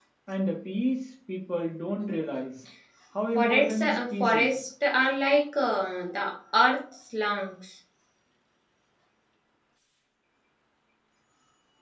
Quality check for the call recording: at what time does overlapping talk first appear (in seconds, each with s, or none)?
3.4 s